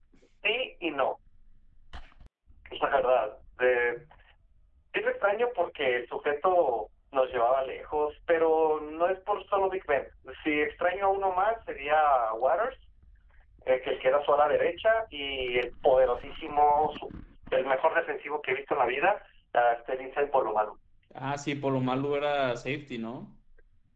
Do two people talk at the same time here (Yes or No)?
No